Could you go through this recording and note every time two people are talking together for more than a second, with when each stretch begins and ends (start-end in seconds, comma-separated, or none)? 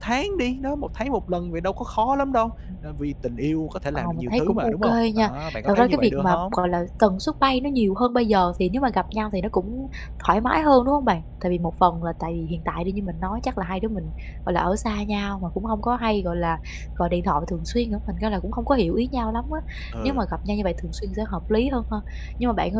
3.9-6.6